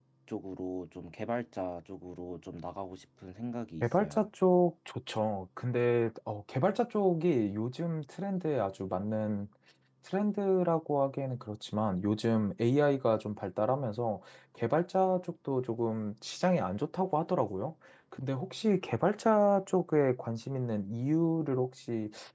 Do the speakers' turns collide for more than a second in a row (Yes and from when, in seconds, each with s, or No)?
No